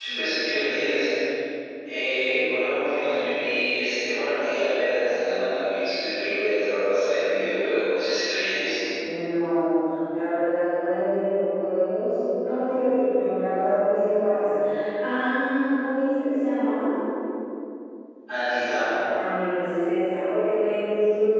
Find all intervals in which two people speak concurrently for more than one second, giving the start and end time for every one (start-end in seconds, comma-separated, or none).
none